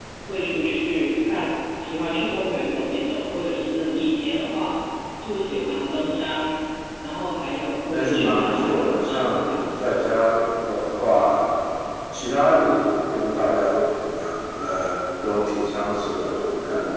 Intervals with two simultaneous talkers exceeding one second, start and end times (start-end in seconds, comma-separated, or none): 7.9-9.7